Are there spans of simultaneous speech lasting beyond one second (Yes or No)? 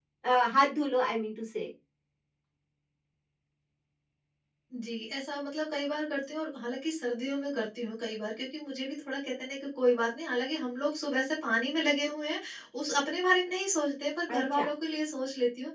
No